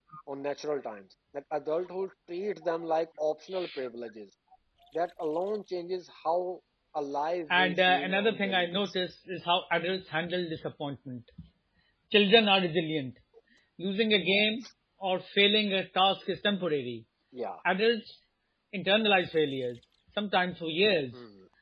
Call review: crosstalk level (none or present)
present